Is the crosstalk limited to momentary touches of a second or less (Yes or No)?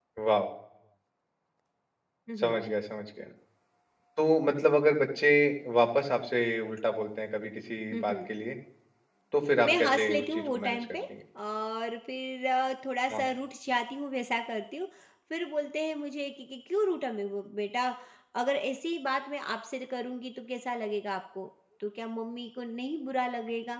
No